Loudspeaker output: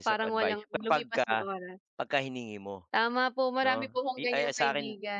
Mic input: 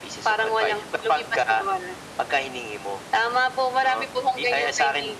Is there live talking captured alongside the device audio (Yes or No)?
No